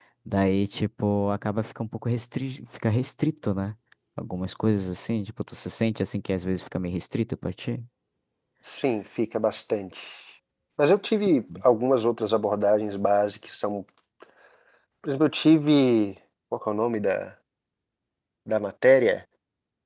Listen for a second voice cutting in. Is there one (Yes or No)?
No